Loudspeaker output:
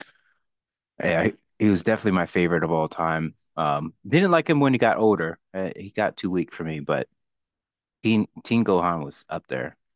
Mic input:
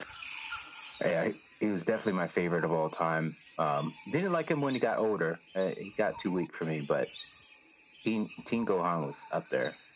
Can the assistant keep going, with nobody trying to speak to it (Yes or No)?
Yes